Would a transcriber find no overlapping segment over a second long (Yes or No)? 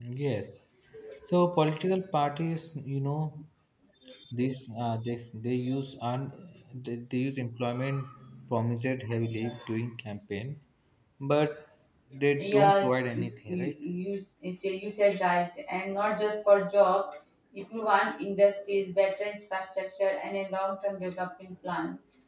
No